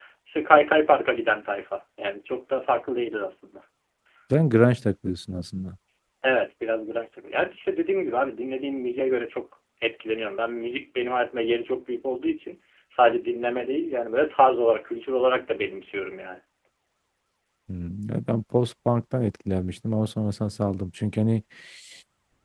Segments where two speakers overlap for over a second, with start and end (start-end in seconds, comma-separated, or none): none